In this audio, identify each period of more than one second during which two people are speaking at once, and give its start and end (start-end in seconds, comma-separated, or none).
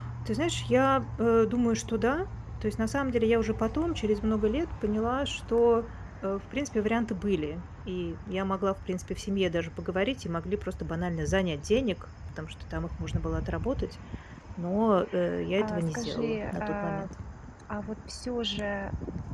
15.6-17.1